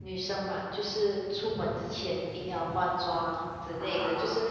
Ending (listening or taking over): listening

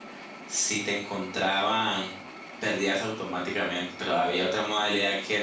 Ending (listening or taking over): listening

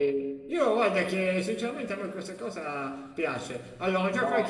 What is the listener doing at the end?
taking over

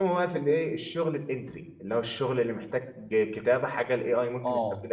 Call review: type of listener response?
taking over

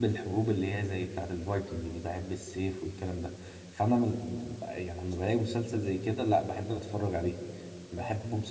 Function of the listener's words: listening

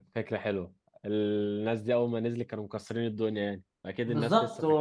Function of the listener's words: taking over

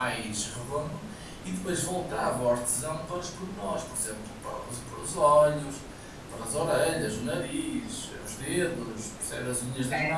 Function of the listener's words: listening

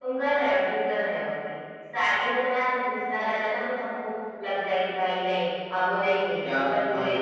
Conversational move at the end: listening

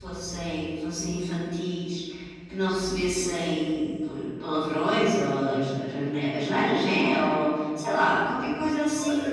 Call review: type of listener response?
taking over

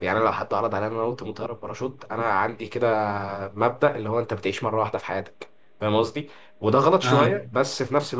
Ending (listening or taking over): listening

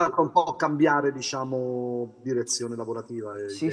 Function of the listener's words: taking over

